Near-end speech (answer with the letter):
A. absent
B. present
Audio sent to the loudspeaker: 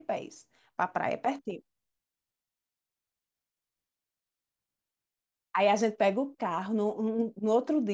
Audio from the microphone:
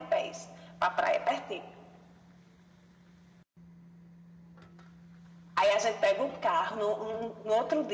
A